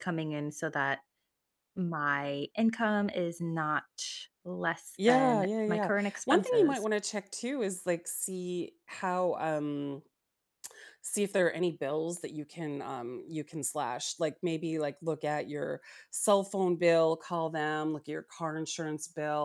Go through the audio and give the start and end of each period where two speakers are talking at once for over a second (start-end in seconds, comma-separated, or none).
5.1-6.8